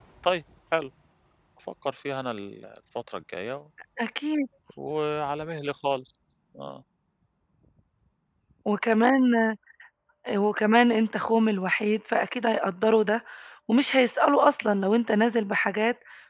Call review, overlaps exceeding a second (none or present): none